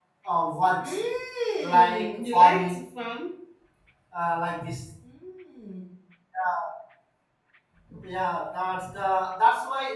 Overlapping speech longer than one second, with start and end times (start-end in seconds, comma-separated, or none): 1.6-2.8